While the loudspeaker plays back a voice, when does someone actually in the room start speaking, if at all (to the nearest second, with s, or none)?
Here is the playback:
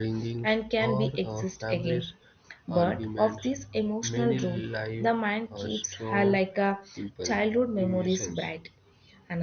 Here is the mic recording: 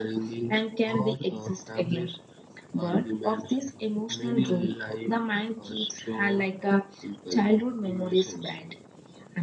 none